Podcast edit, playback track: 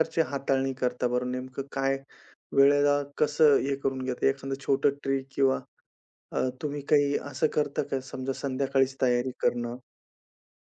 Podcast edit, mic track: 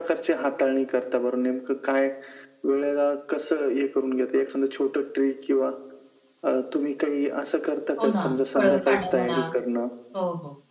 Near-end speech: present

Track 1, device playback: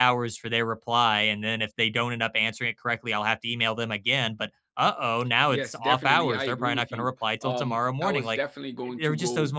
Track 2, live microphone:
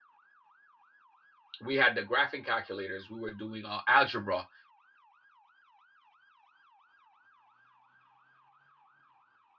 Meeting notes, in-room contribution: present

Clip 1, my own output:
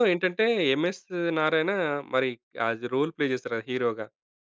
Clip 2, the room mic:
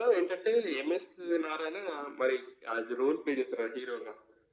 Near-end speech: none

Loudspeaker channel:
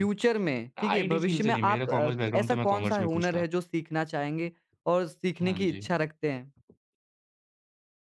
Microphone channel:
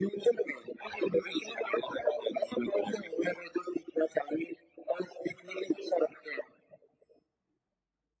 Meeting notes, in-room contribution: none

